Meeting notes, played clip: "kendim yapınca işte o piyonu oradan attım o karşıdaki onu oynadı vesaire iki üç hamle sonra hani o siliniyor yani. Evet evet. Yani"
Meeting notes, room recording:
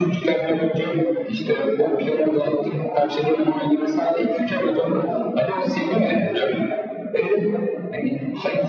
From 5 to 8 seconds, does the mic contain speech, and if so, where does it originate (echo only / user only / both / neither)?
echo only